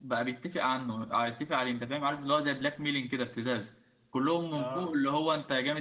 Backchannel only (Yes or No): Yes